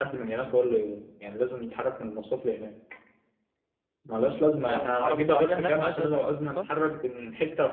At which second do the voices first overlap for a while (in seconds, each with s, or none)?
4.7 s